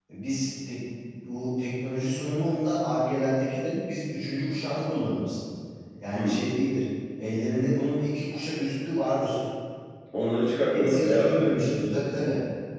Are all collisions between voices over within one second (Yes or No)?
No